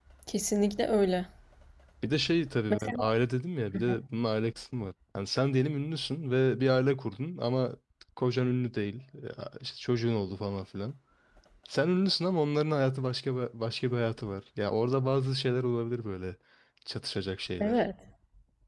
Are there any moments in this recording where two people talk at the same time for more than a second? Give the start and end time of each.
none

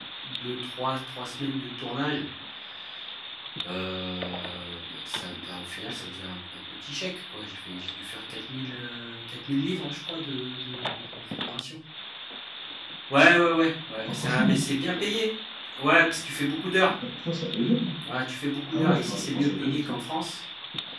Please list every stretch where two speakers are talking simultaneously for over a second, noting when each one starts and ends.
18.7-20.0

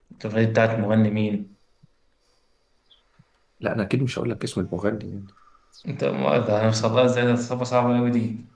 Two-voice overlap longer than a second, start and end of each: none

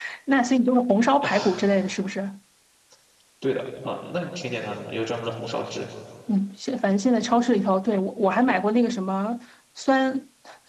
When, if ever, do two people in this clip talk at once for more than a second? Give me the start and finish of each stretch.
none

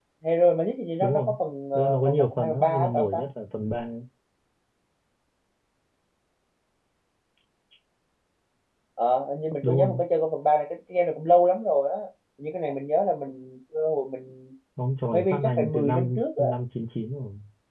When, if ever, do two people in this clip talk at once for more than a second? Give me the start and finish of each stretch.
1.8-3.2, 15.1-16.4

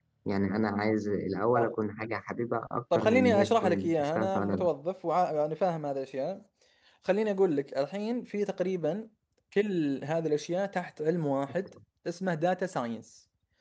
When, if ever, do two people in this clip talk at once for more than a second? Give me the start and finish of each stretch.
3.0-4.7

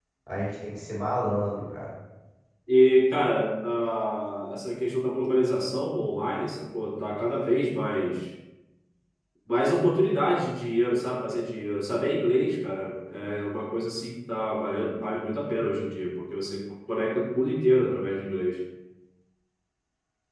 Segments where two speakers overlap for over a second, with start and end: none

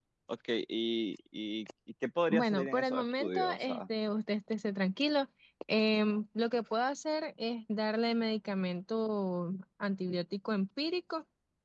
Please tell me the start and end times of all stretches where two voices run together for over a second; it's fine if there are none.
2.3-3.8

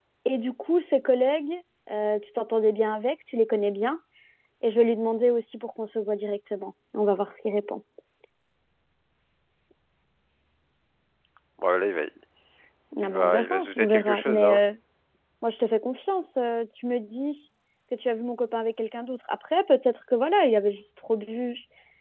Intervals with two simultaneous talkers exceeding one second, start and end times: 13.0-14.6

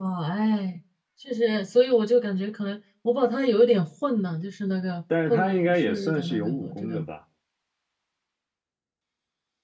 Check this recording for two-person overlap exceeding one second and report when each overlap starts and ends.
5.3-7.0

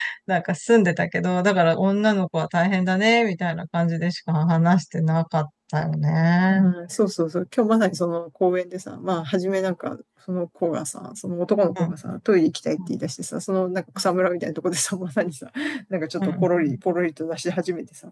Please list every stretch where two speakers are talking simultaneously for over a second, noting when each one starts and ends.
none

